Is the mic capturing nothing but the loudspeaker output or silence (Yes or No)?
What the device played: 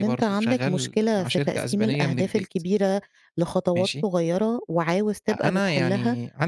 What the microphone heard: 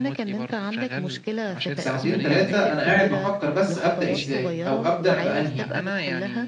No